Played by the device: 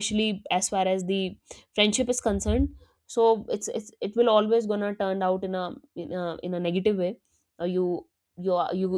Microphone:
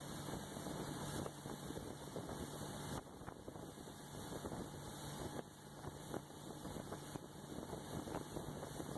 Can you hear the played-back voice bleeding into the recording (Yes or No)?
No